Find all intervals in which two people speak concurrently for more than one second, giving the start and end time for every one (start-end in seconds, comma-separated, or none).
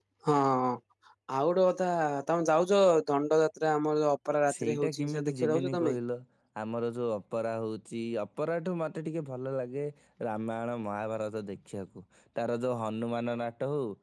4.6-6.0